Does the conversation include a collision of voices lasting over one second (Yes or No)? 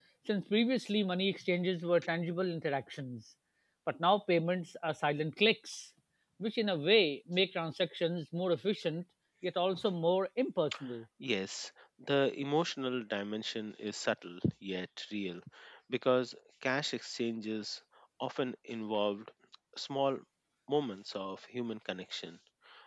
No